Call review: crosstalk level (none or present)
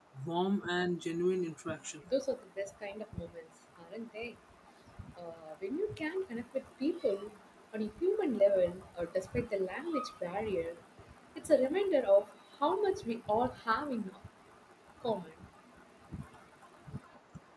none